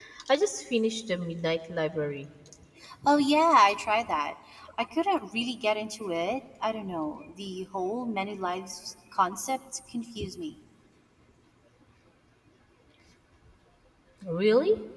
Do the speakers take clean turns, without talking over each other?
Yes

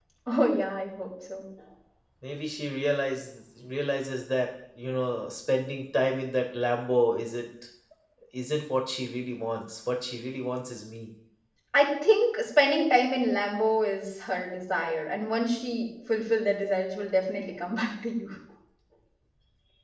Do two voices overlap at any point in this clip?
No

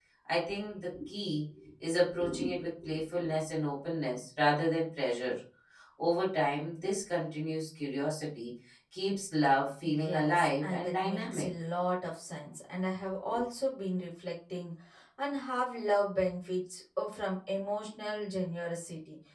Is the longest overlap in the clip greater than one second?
Yes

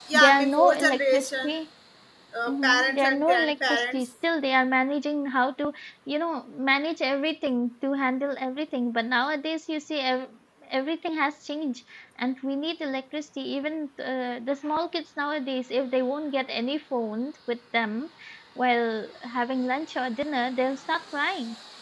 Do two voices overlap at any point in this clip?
Yes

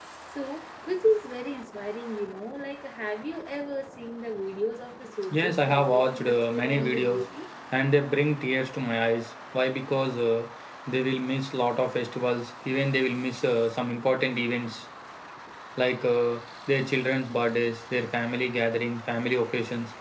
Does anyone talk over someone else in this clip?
Yes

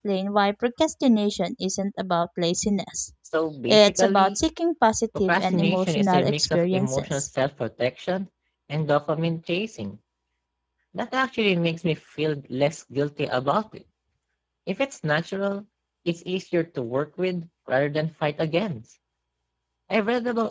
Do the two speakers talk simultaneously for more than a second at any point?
Yes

